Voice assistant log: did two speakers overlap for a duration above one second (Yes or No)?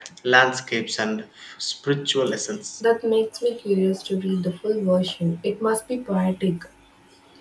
No